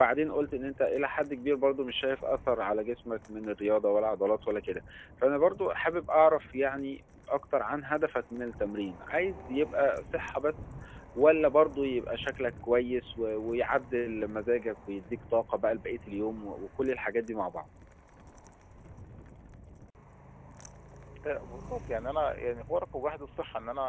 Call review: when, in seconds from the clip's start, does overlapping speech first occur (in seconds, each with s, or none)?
none